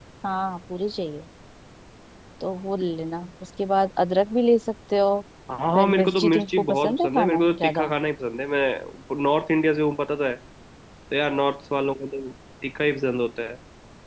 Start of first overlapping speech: 5.8 s

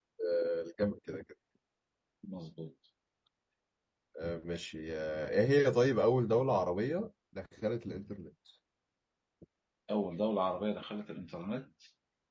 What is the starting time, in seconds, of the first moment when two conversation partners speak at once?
none

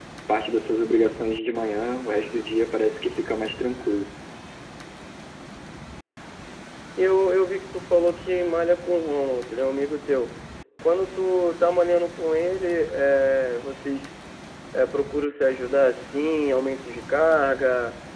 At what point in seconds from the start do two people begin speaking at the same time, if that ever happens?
none

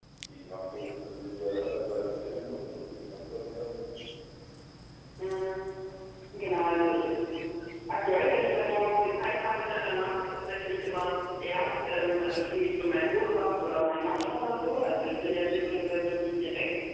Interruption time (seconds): none

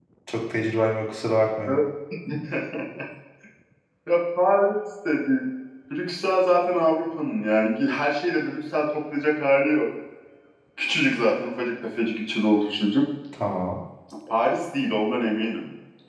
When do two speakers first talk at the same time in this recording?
none

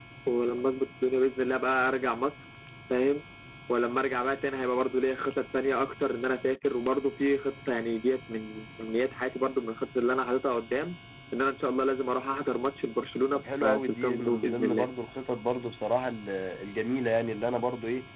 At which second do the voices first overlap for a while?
13.3 s

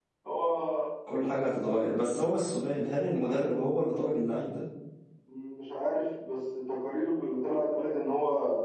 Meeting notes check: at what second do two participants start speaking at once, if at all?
none

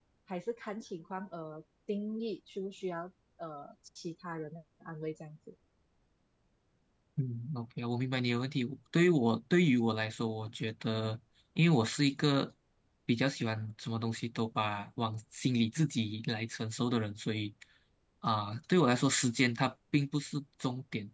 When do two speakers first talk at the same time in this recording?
none

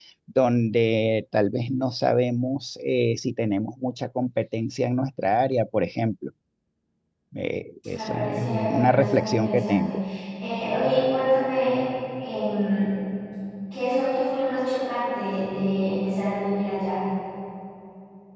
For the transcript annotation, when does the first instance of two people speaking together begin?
7.9 s

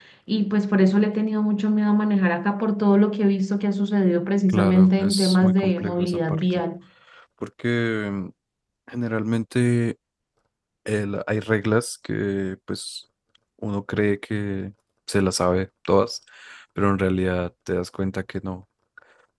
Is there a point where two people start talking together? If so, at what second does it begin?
4.5 s

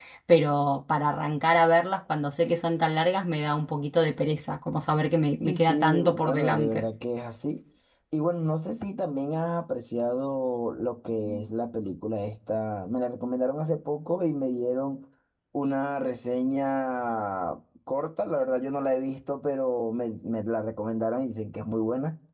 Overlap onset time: 5.5 s

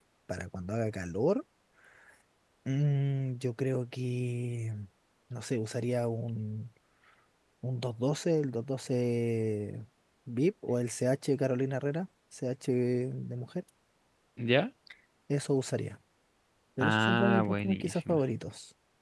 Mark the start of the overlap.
16.8 s

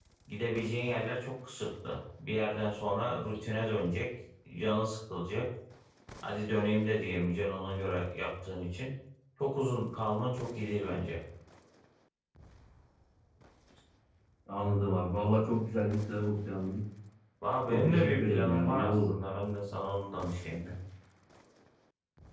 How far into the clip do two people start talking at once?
17.7 s

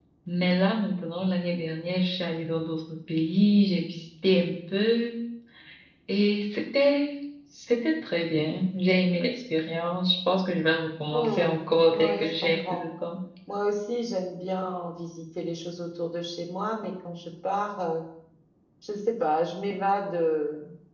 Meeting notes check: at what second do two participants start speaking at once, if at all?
11.1 s

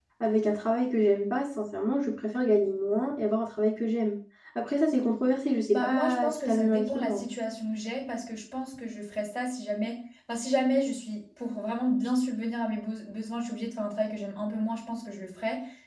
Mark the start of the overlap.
5.7 s

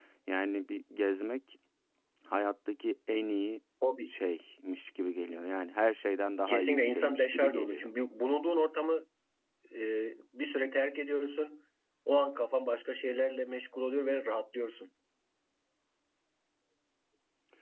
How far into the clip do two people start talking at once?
6.5 s

